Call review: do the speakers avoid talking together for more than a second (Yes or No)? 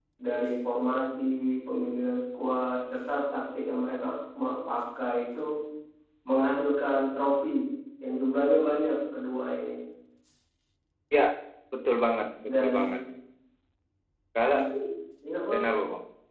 Yes